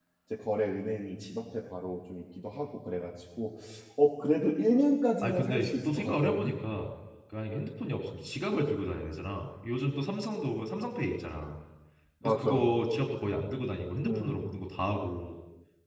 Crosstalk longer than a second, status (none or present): present